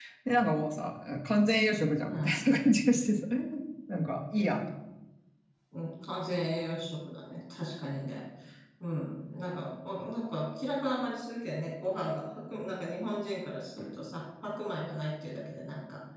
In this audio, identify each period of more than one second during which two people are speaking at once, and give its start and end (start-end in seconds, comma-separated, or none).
none